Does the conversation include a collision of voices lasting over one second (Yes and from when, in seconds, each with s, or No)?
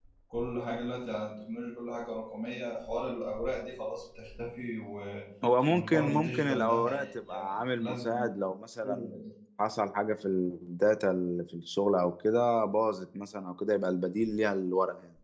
Yes, from 5.7 s